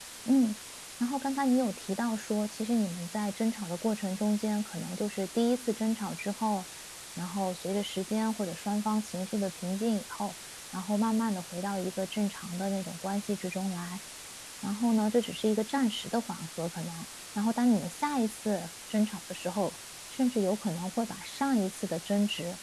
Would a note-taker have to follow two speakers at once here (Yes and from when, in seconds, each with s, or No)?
No